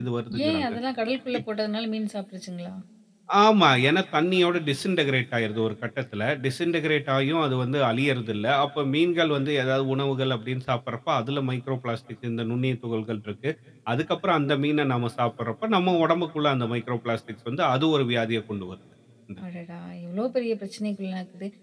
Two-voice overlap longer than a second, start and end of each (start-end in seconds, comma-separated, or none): none